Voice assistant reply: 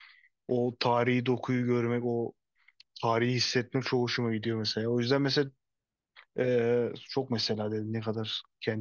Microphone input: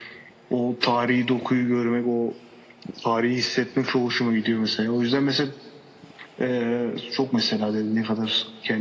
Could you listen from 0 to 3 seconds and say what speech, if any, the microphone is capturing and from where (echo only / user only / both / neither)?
echo only